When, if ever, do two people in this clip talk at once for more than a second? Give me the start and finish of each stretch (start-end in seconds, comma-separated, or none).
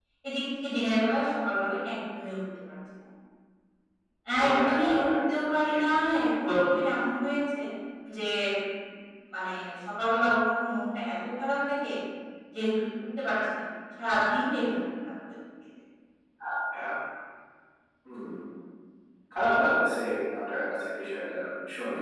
4.4-5.8